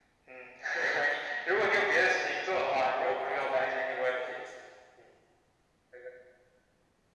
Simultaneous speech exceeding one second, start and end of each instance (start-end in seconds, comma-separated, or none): 1.6-4.4